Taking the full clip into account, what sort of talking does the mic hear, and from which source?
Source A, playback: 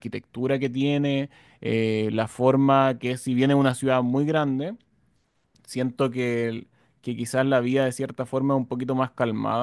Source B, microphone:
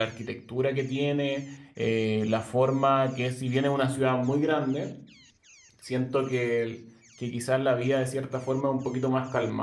echo only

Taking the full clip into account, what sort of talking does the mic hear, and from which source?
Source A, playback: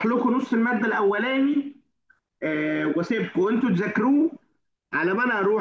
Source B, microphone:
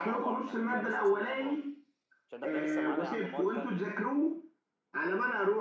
both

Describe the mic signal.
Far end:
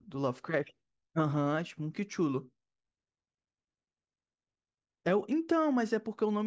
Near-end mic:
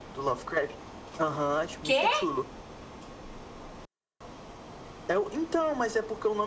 both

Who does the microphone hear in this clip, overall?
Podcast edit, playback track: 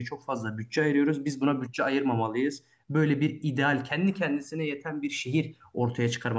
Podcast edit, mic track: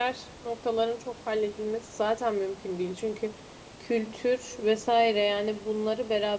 user only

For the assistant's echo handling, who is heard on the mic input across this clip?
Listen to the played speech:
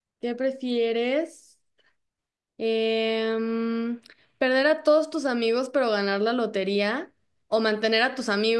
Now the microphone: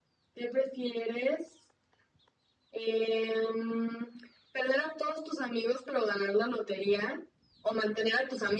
echo only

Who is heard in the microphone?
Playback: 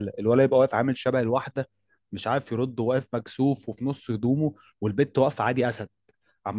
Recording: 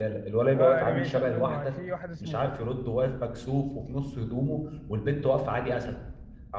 both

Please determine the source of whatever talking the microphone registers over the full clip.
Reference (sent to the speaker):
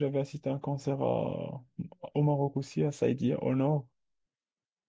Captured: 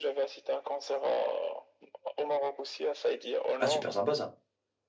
both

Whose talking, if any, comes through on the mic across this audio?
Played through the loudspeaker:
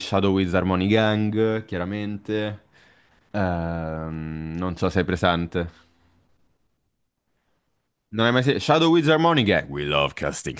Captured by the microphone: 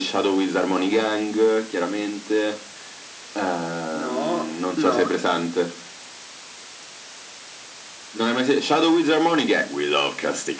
both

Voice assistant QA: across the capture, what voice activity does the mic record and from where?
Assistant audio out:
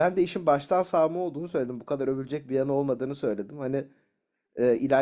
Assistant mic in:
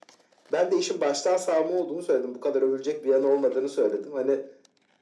echo only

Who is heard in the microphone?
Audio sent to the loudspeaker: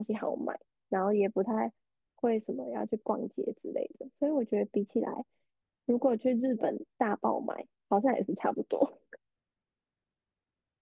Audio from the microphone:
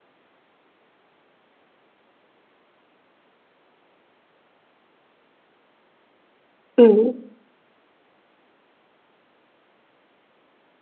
user only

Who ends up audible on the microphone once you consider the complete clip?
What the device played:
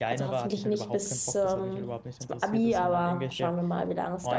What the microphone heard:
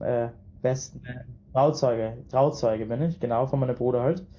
user only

